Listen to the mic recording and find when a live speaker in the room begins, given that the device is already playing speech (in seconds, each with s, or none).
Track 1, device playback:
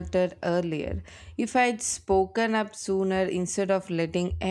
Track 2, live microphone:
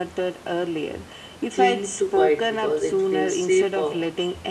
1.6 s